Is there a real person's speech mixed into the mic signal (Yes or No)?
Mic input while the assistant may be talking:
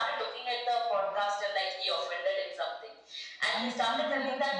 Yes